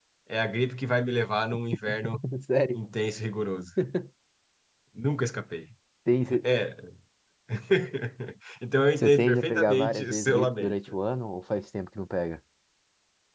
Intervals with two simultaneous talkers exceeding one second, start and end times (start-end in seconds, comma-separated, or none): 9.0-10.7